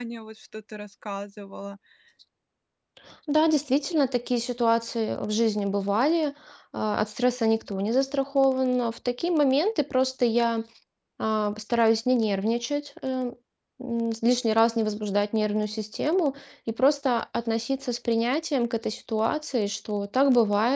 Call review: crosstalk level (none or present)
none